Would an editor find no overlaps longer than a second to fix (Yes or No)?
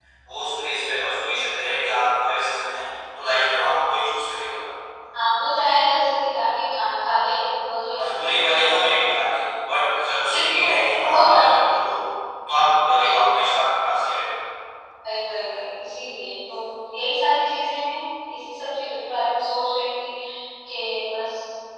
No